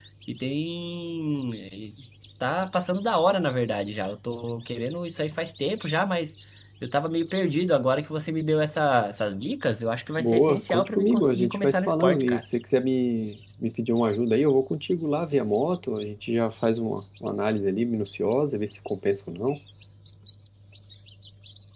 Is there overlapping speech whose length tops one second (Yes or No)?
Yes